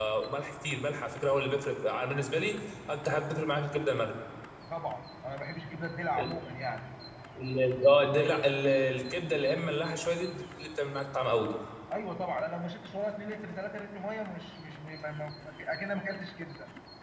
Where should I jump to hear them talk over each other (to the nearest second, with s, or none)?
none